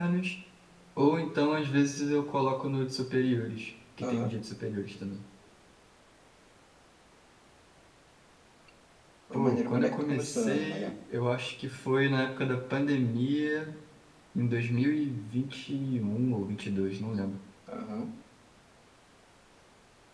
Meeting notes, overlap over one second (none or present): present